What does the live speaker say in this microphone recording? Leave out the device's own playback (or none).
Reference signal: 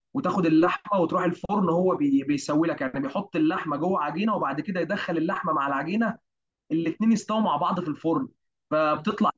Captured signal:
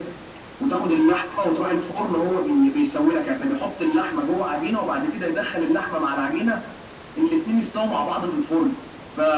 none